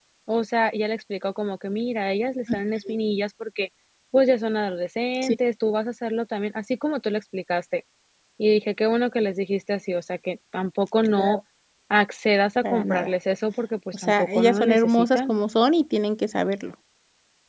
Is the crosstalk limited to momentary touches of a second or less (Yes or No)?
No